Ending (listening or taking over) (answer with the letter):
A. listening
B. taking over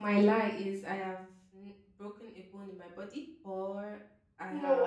B